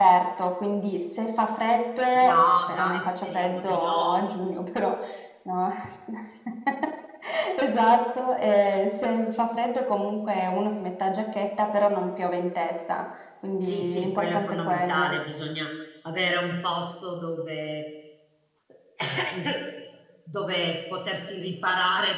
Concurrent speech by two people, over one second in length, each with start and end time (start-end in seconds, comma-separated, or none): 2.2-4.2, 13.6-15.1